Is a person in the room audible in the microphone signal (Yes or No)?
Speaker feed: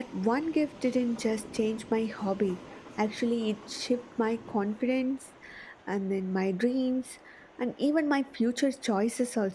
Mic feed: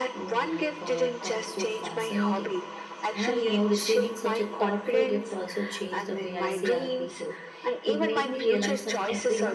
Yes